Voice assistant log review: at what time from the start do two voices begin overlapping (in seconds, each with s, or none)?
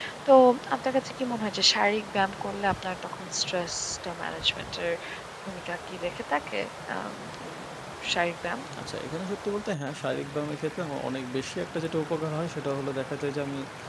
none